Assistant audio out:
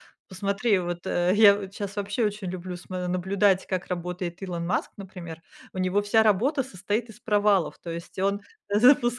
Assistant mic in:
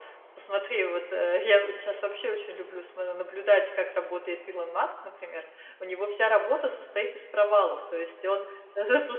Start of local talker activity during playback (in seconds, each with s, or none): none